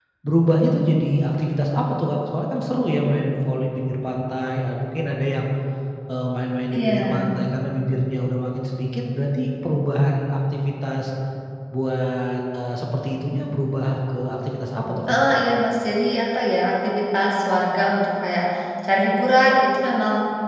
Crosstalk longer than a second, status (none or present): none